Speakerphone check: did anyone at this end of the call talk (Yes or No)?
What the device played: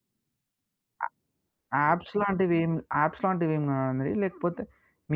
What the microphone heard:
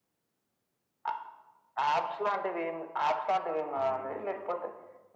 Yes